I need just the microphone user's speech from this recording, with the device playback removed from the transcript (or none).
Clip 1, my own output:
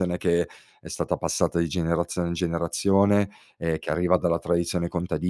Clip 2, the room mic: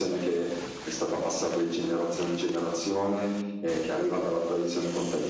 none